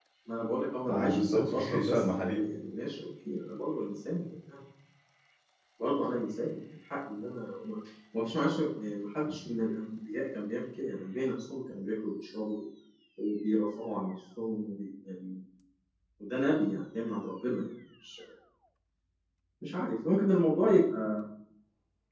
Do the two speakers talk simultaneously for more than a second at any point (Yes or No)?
Yes